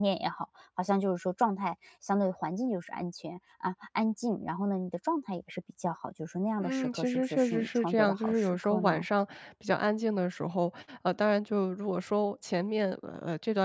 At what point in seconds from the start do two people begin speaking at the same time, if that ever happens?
7 s

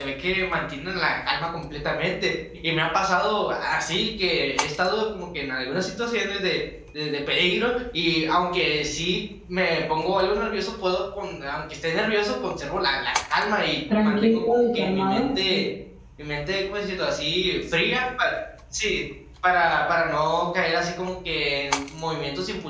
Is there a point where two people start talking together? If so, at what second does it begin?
14 s

